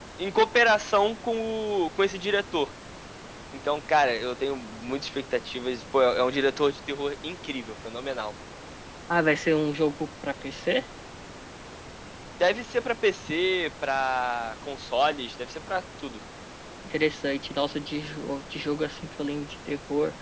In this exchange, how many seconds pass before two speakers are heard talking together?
none

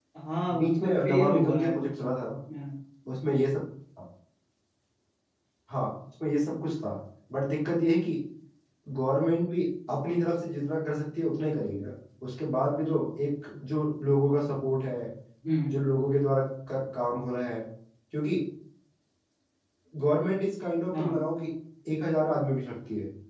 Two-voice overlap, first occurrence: 0.6 s

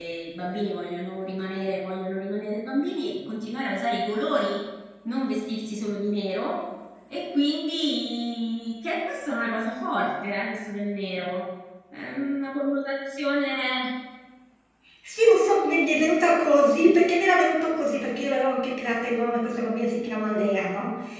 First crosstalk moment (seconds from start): none

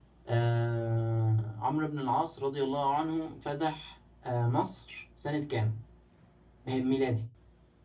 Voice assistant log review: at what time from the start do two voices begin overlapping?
none

